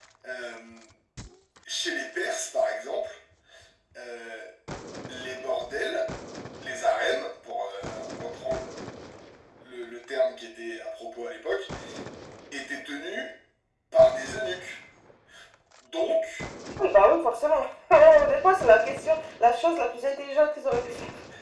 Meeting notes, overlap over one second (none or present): none